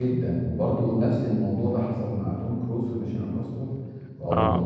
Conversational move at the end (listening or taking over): listening